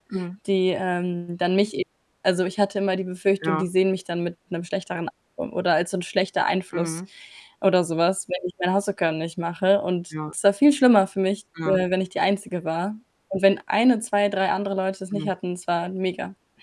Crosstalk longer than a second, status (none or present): none